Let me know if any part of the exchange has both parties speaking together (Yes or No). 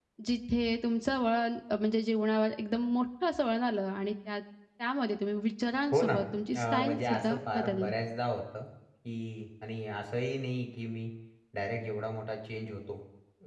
Yes